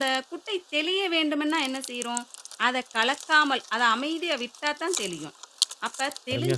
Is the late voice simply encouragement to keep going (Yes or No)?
Yes